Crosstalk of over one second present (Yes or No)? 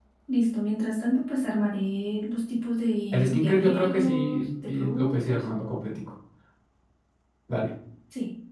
Yes